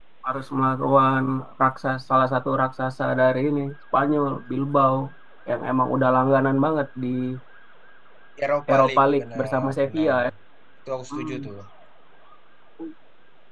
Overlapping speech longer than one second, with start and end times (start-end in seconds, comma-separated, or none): 8.7-10.2